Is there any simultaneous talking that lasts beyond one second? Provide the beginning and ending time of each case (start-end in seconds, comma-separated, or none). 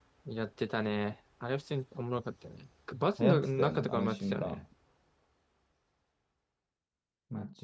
3.2-4.6